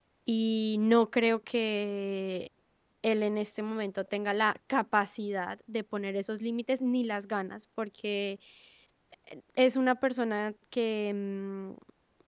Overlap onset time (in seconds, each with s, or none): none